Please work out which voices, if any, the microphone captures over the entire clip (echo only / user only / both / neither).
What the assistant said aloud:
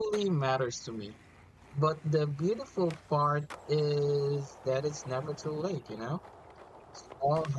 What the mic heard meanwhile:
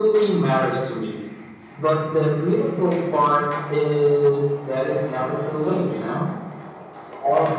echo only